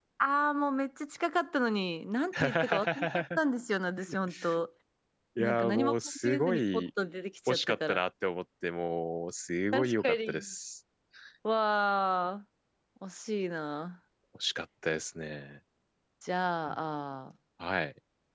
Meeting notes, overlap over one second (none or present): present